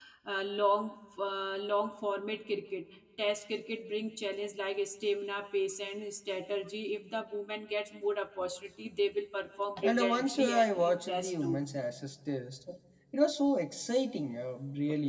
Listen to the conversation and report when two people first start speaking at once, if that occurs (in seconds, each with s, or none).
9.8 s